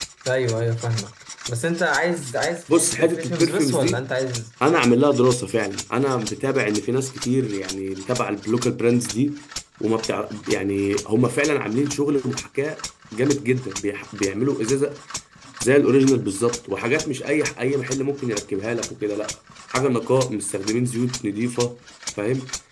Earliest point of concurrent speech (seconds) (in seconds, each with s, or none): 2.7 s